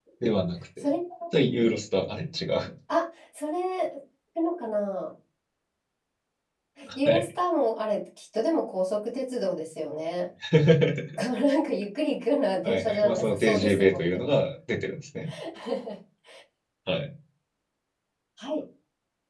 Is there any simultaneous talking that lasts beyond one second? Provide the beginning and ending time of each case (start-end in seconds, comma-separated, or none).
12.6-14.2